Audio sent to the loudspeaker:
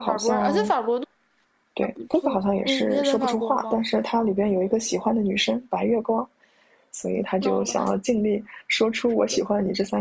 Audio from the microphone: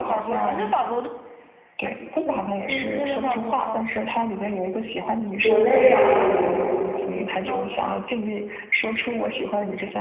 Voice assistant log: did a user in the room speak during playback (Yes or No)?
Yes